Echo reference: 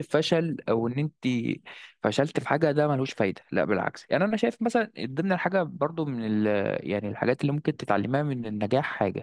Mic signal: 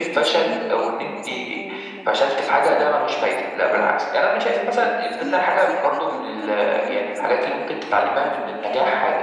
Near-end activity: present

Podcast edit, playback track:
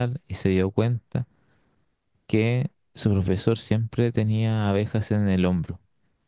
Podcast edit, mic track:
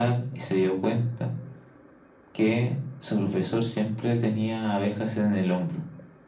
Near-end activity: none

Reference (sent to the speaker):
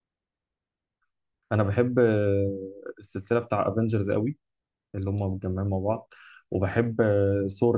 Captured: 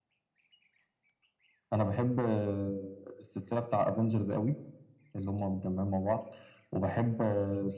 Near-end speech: none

